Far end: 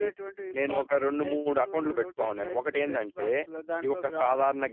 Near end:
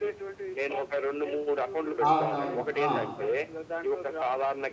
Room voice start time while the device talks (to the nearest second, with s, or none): 2 s